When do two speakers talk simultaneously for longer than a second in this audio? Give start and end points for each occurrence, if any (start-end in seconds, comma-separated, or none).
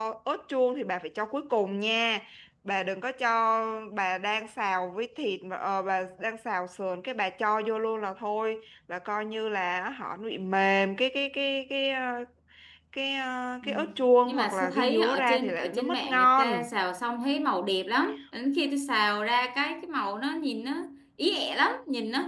14.2-16.7